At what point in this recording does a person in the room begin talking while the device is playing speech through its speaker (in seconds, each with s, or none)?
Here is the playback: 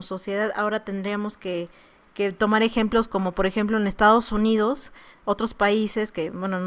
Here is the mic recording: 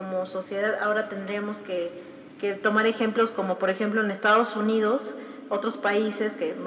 none